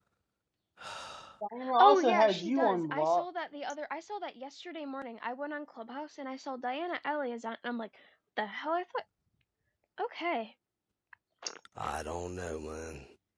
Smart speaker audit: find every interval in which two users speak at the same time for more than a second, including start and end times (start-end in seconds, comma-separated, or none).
1.8-3.2